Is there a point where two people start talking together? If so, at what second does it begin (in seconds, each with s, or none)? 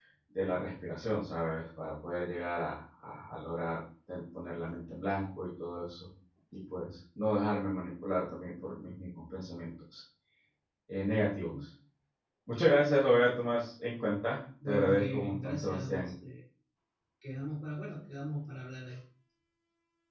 14.6 s